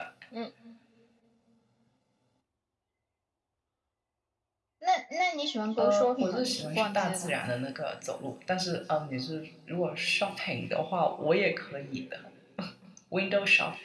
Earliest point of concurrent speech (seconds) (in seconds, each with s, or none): 5.8 s